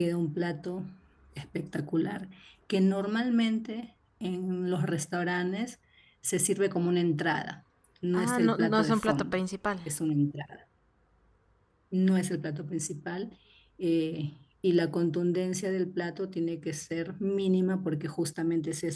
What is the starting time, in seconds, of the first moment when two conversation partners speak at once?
8.1 s

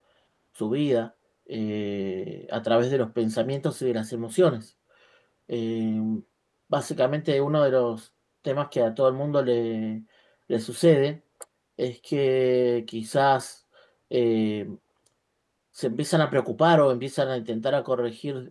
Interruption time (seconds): none

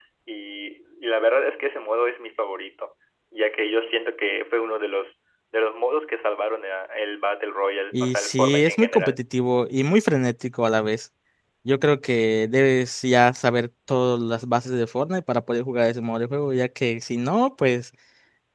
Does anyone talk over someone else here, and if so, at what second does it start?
7.9 s

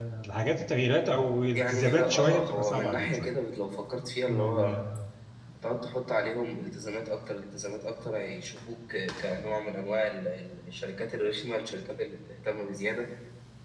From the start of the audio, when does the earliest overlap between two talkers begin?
1.5 s

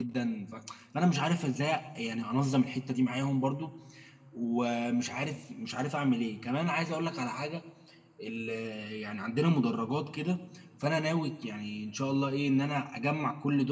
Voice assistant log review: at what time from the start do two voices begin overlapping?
none

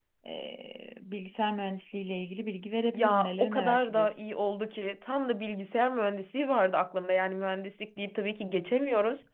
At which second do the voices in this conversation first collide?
2.9 s

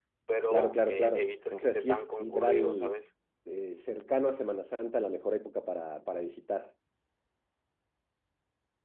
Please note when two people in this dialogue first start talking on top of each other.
0.5 s

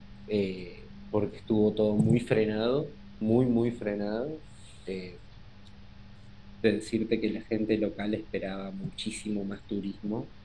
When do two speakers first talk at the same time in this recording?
none

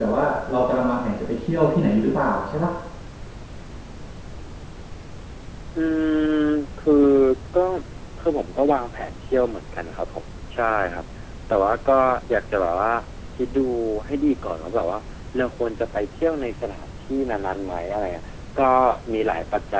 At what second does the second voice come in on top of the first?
none

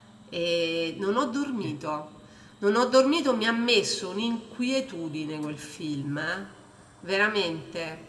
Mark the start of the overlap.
none

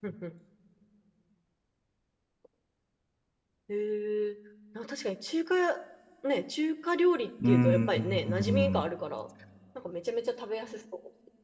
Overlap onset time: 7.4 s

